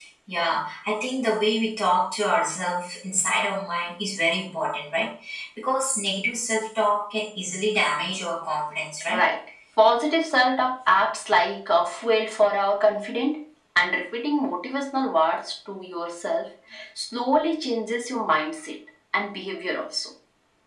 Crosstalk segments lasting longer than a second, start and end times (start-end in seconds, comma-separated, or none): none